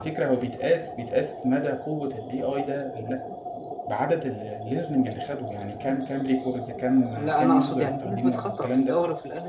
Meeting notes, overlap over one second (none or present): present